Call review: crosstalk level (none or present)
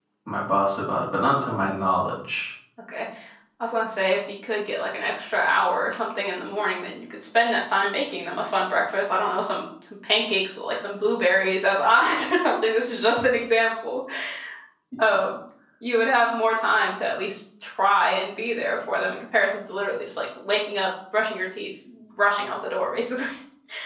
none